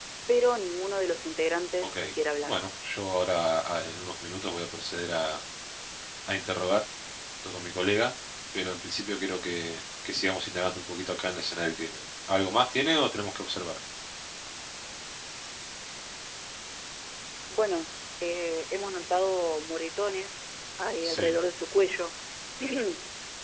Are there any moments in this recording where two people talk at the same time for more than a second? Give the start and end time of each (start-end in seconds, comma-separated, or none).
none